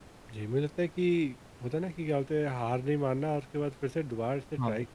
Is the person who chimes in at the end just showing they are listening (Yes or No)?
Yes